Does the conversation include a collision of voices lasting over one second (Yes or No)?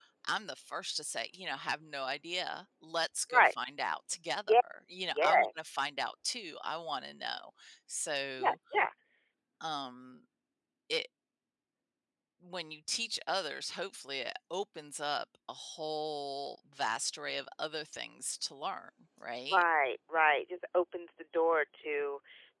No